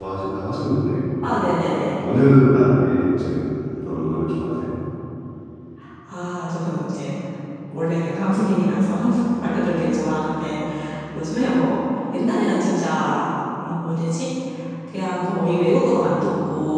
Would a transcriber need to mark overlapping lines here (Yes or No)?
No